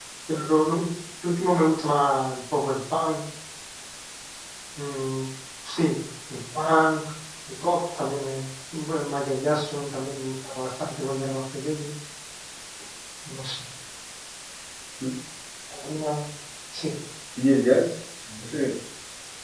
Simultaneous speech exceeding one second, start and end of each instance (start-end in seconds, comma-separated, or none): none